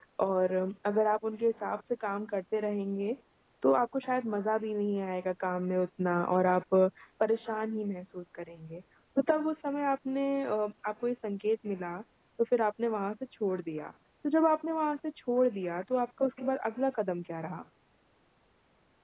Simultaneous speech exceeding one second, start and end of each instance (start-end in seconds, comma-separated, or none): none